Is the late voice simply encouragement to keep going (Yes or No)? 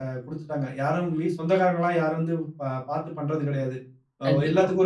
Yes